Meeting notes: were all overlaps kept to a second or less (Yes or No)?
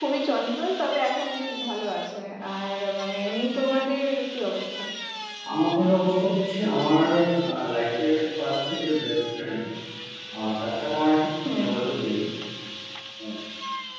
Yes